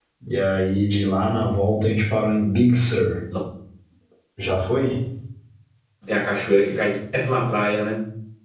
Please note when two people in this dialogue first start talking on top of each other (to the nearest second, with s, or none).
none